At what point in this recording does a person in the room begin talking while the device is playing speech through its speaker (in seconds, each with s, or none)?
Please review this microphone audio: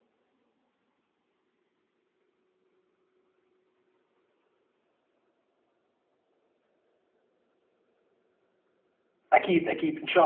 9.3 s